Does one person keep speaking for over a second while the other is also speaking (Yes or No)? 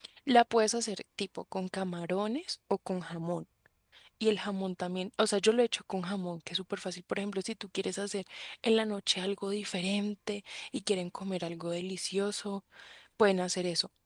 No